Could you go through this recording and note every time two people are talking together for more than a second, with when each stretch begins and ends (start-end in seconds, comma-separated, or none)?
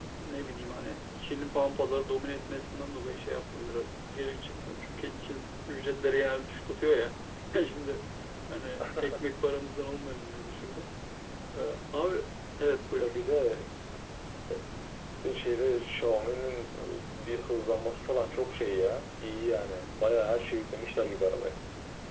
none